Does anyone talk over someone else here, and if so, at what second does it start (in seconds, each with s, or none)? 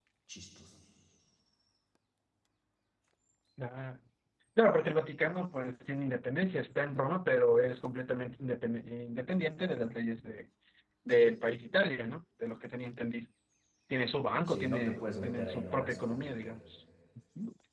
14.5 s